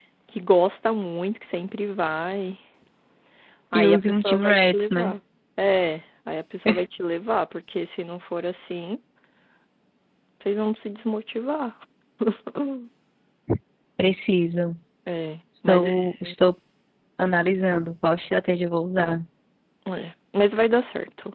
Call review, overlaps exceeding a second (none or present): present